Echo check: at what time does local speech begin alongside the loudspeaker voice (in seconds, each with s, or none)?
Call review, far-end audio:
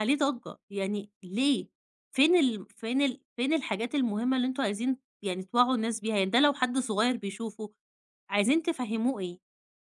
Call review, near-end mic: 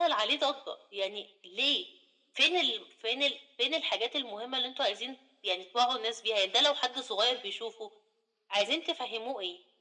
none